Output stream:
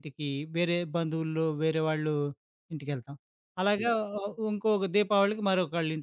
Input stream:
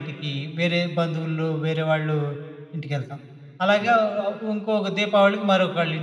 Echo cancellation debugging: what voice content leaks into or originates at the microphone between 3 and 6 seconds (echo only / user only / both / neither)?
echo only